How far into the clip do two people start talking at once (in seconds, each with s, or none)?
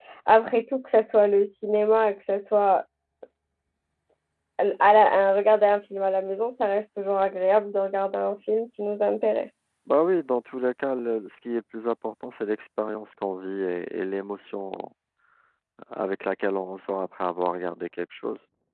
none